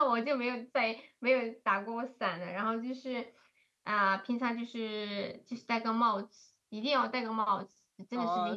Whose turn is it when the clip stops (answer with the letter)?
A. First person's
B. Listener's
B